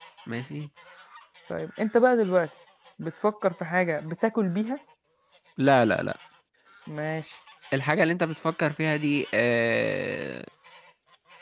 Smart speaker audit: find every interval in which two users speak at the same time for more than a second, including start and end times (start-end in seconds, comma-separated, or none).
none